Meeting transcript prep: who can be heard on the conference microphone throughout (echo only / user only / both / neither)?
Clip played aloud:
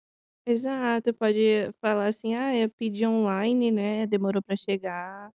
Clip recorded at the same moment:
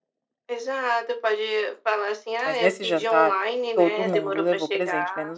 both